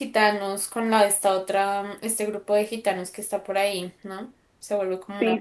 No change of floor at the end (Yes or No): No